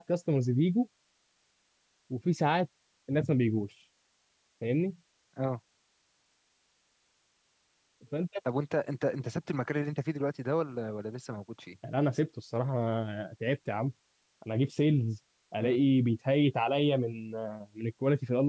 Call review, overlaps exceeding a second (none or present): none